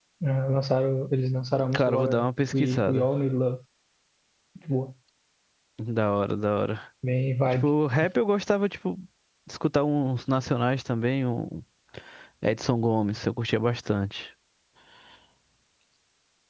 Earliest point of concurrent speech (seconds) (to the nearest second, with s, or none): 2 s